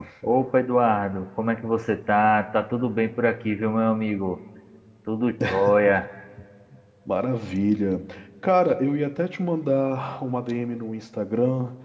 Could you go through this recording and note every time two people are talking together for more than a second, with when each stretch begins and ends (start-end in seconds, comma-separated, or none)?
none